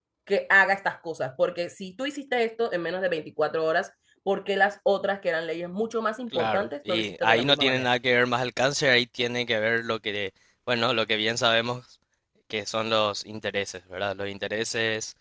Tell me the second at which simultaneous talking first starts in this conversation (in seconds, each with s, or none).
6.3 s